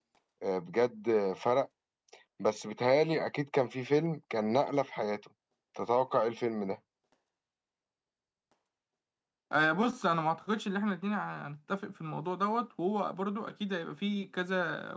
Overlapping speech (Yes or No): No